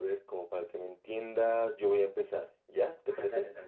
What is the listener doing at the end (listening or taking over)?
taking over